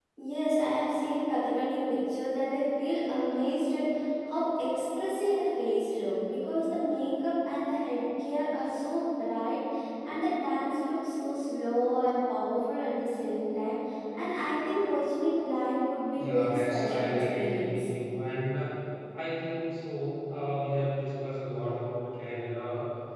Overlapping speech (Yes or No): Yes